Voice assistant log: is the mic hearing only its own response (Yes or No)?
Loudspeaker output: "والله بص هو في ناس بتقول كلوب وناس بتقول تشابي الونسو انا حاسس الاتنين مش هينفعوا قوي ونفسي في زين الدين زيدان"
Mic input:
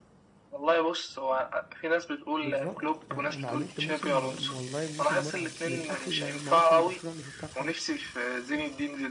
No